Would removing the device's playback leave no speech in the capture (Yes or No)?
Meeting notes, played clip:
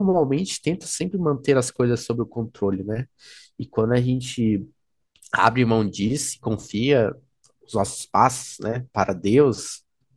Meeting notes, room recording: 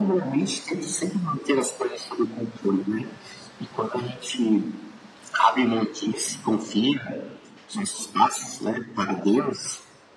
Yes